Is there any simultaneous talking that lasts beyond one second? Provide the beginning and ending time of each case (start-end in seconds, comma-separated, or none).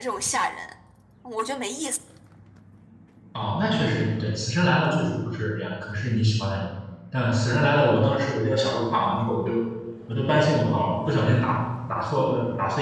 none